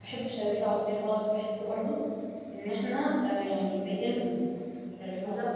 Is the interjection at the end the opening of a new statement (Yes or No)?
Yes